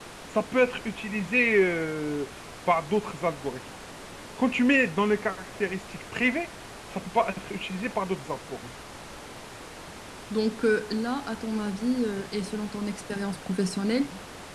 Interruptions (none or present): none